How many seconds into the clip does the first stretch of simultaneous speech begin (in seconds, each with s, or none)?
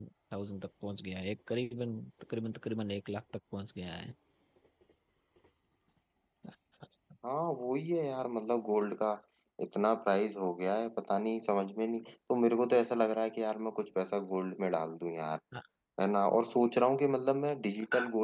none